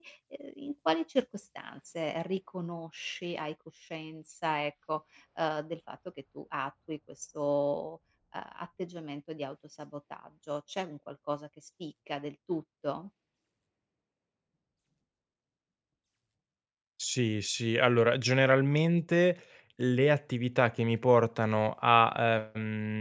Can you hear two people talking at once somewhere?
No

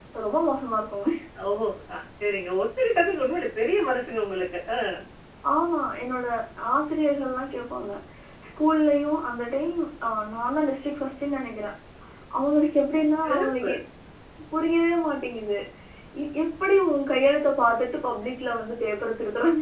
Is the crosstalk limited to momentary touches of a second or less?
Yes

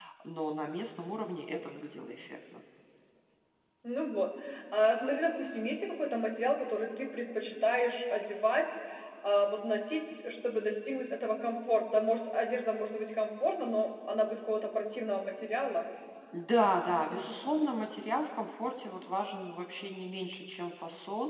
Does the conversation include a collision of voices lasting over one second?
No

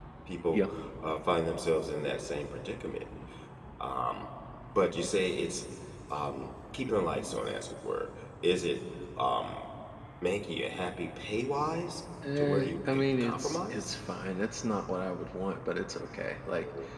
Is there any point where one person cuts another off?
Yes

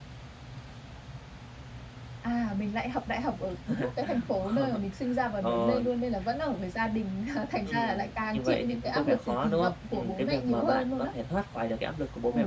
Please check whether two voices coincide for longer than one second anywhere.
Yes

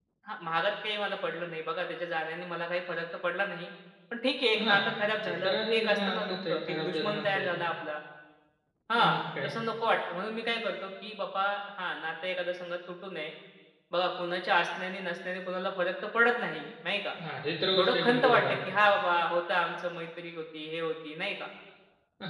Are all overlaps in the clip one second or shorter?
No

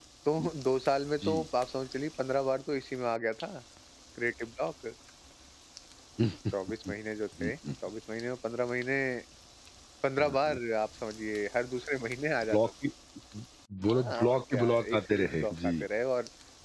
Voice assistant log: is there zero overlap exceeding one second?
No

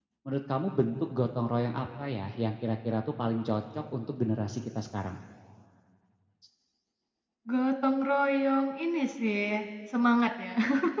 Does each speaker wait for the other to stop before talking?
Yes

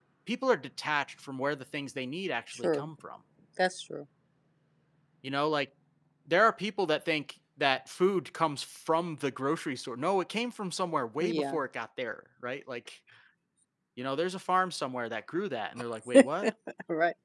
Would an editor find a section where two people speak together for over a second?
No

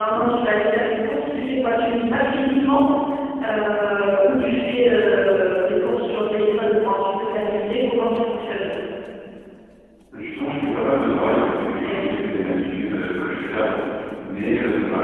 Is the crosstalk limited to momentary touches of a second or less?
Yes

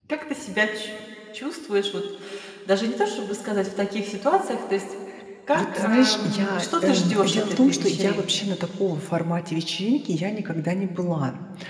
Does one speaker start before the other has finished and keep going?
Yes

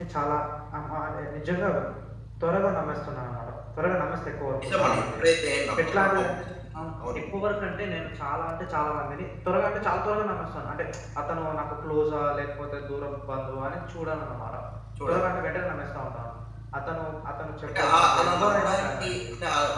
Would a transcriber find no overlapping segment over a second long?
No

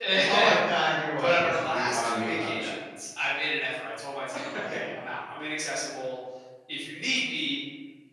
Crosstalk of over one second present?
Yes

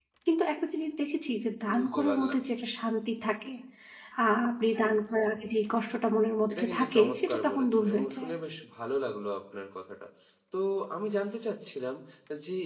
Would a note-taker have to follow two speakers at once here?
Yes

